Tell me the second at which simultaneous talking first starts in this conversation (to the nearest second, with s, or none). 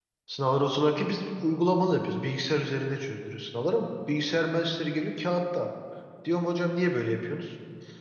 none